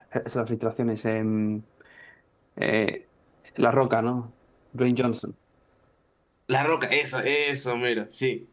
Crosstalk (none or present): none